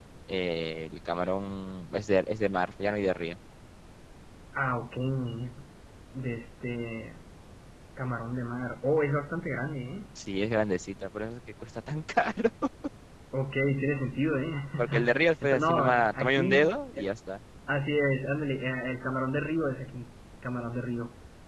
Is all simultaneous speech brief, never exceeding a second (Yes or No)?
No